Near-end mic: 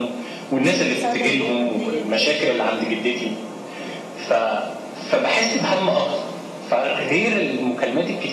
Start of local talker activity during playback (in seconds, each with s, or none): 0.7 s